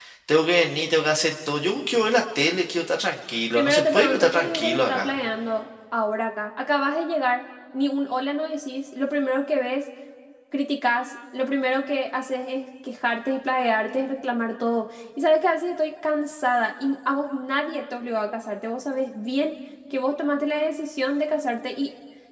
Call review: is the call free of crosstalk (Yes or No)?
No